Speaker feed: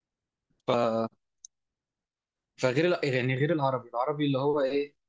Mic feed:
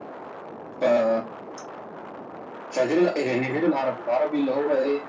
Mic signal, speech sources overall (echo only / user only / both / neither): echo only